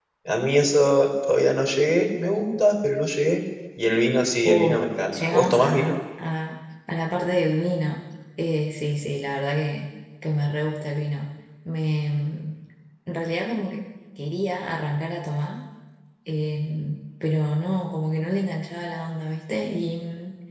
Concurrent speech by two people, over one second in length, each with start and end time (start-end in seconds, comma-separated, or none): 4.5-6.0